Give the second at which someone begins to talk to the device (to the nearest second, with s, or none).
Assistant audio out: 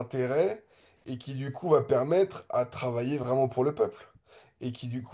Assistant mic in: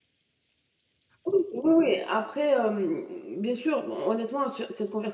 1 s